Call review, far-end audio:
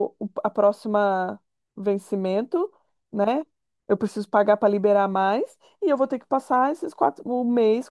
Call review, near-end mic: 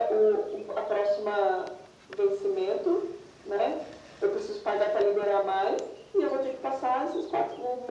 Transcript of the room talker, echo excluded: none

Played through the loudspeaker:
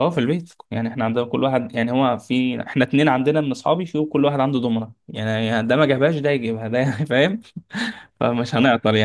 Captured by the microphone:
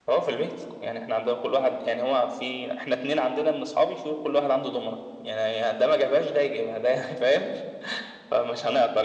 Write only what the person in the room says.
none

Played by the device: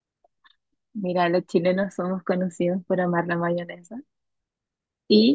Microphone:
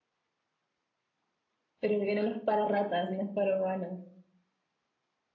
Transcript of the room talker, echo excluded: Pero el veneno es para ratas, no es para humanos.

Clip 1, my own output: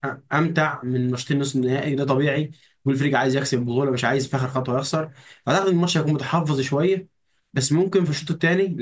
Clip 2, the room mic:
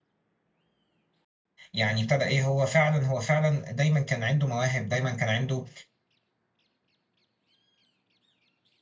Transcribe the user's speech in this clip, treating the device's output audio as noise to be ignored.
يعني ابتدى ايه هو فعلا هو فعلا دايما كان عنده مواهب دايما كان عنده

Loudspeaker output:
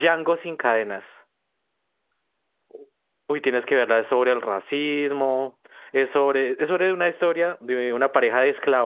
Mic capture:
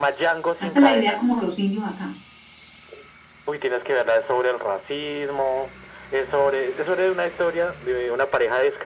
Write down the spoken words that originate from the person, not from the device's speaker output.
Hasta la idea como los indios acá.

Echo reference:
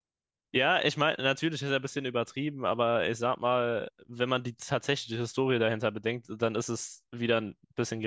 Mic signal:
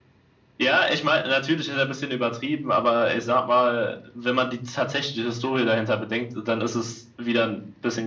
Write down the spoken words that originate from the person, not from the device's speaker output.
none

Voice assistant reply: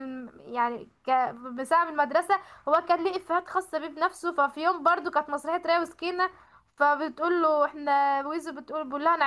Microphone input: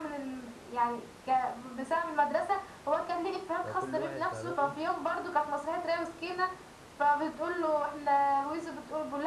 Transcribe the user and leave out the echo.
فكل واحد فاهمان ايه

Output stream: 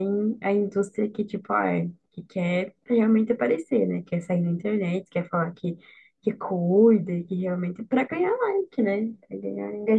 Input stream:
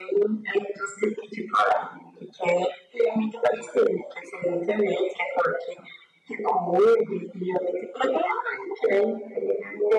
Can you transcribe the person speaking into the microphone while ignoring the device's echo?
none

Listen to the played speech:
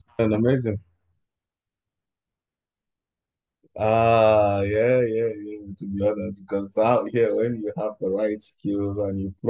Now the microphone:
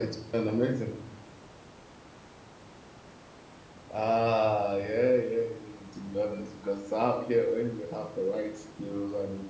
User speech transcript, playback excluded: none

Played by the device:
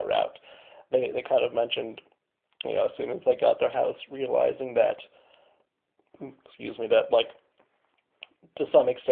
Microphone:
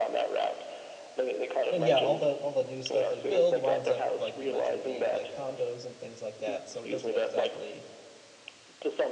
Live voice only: And yeah, all the all the new stuff they build winds up like you mentioned being like condos and things like that, so it doesn't exactly,

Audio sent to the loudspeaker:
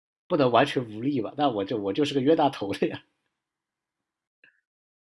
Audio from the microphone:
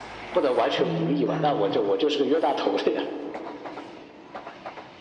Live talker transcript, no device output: 明白了，

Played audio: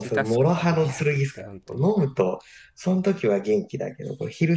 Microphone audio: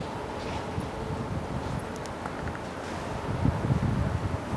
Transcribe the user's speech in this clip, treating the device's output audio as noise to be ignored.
none

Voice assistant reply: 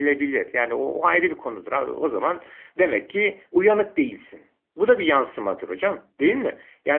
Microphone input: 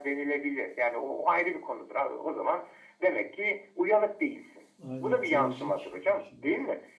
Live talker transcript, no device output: Aynen trajik bir şey. Evet.

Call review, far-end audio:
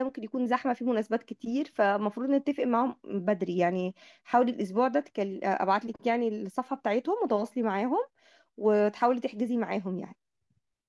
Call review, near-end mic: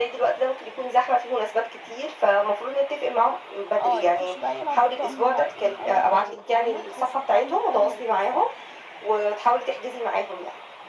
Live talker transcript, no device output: اه يخش بقى يلعب في الطقم بقى ايه اي كلام فاهمه بحيث الطقم بتاعه ما يتوسخش

